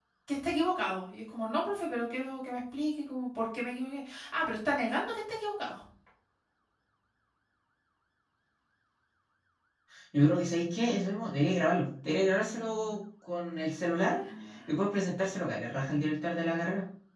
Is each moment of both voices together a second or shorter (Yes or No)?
Yes